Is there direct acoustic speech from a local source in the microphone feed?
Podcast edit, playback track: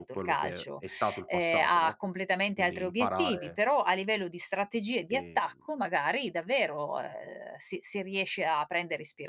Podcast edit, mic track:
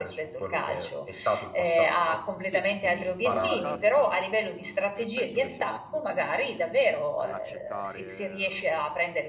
Yes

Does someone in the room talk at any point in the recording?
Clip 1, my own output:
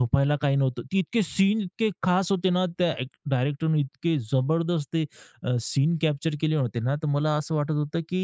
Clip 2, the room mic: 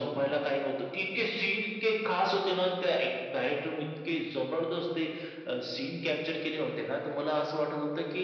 No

